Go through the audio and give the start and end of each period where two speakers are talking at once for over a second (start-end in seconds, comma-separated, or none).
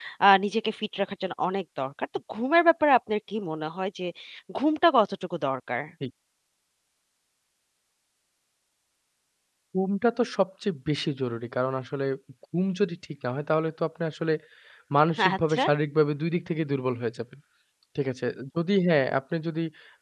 none